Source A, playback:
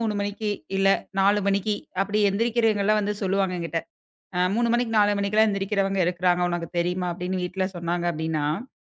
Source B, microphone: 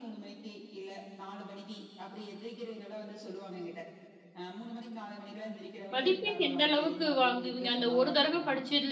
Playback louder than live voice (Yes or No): No